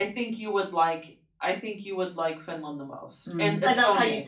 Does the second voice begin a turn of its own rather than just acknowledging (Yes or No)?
Yes